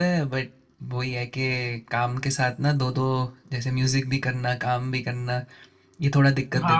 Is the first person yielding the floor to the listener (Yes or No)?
Yes